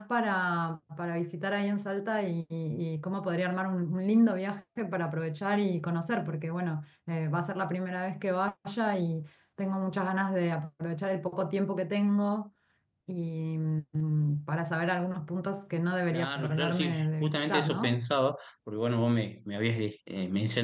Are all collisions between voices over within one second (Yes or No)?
No